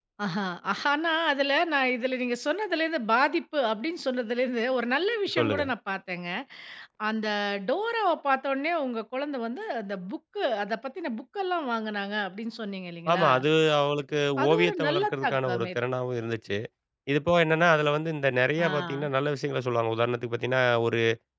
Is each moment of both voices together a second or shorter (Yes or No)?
No